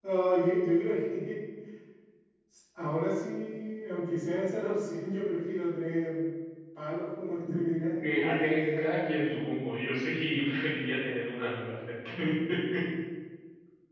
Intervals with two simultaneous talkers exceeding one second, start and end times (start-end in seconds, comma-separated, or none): 8.0-9.3